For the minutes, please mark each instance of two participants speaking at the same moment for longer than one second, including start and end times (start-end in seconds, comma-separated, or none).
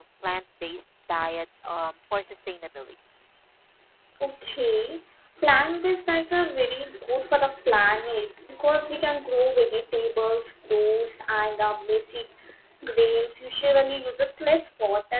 none